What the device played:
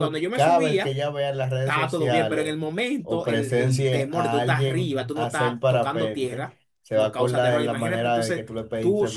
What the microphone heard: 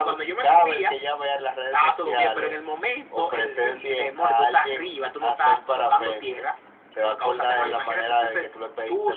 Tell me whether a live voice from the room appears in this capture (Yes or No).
No